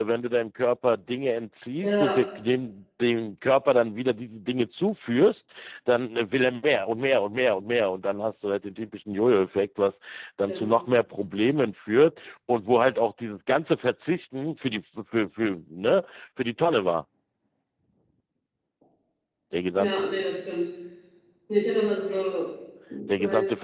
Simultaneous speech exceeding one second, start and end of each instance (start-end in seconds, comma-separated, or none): none